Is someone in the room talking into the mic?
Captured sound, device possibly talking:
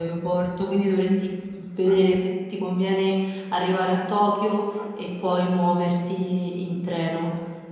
Yes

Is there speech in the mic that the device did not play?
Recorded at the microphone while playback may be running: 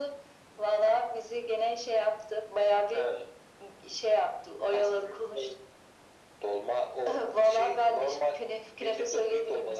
No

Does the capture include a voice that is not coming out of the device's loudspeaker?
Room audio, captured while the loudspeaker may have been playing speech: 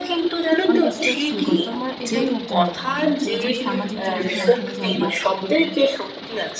Yes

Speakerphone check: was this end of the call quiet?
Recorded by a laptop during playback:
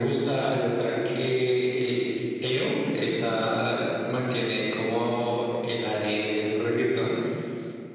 Yes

